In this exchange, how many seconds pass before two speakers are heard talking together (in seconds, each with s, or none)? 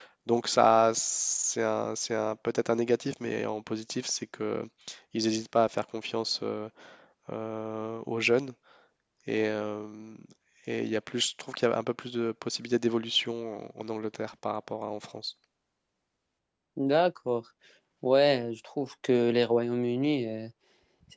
none